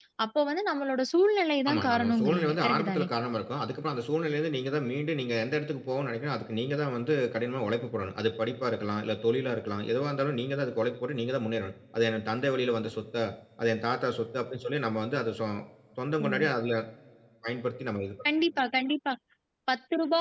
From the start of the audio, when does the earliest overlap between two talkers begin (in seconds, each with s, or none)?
1.7 s